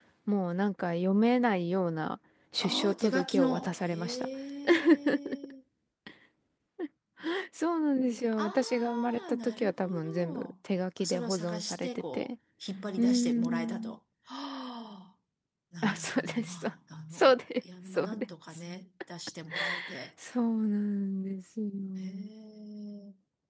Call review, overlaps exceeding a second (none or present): present